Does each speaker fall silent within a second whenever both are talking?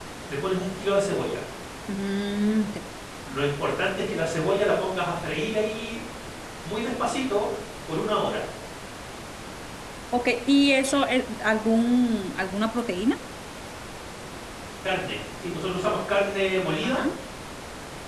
Yes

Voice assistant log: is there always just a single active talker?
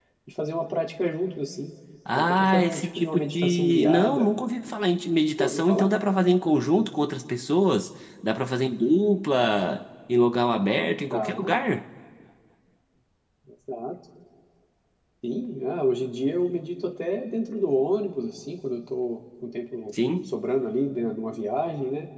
No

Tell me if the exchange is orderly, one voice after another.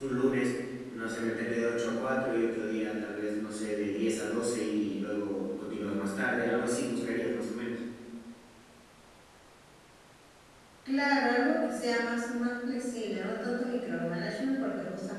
Yes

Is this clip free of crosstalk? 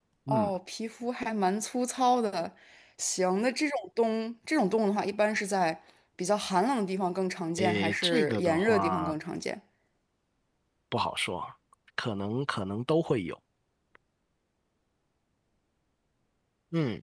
No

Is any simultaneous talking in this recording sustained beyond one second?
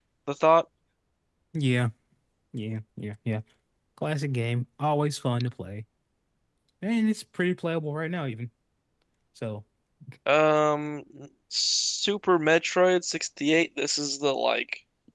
No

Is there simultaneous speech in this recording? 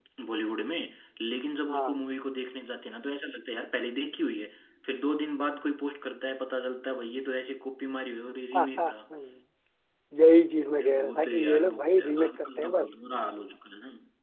Yes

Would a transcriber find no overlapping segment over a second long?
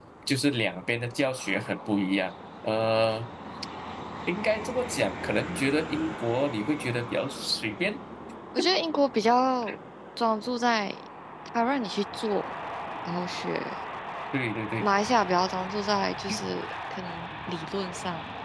Yes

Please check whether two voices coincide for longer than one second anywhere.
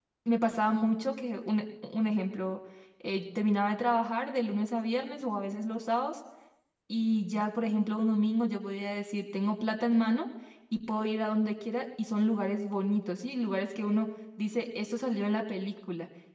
No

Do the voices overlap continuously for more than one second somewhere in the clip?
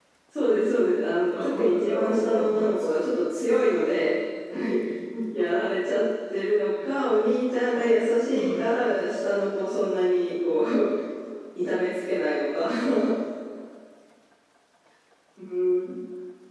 Yes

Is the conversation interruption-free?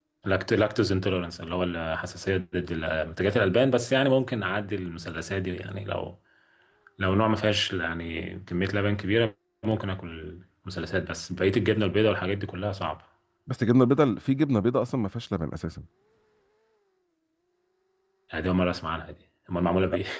Yes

